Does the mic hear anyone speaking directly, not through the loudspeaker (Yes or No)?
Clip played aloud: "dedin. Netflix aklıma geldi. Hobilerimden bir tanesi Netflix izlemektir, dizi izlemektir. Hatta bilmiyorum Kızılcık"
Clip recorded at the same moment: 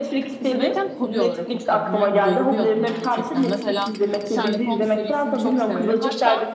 Yes